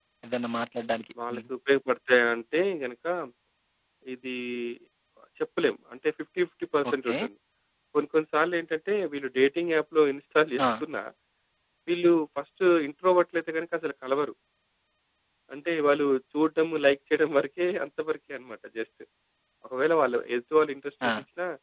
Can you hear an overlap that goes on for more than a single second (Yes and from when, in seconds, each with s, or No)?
No